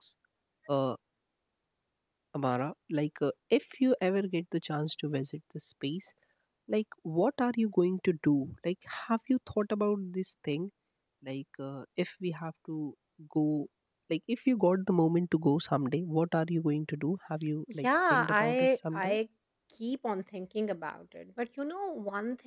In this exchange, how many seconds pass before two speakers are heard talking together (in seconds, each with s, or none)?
17.8 s